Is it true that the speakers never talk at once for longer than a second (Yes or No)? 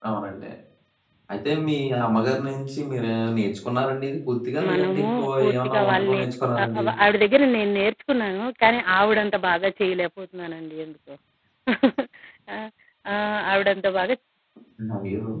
No